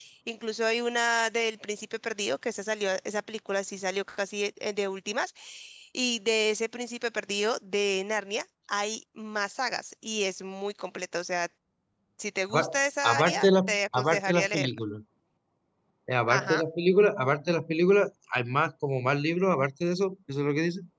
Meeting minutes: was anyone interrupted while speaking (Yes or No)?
Yes